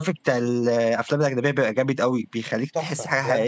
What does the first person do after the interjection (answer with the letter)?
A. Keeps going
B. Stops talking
B